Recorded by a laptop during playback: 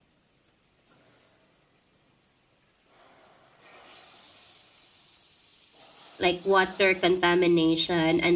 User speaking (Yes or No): Yes